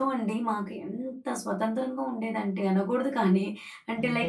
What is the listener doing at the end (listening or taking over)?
listening